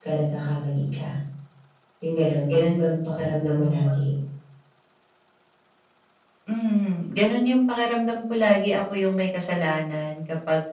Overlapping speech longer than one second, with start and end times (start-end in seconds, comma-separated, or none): none